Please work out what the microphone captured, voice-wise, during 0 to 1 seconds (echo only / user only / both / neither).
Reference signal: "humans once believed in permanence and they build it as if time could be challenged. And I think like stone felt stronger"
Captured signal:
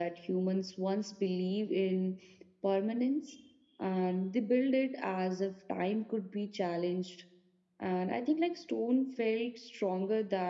echo only